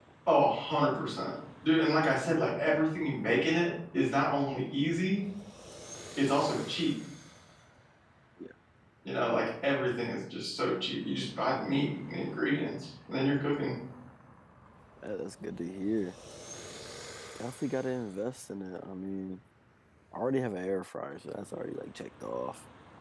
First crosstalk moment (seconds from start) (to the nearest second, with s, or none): none